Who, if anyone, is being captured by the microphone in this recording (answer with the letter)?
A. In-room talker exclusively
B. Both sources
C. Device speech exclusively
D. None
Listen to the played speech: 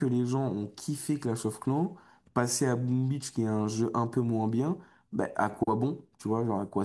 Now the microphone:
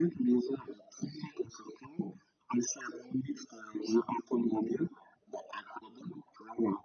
C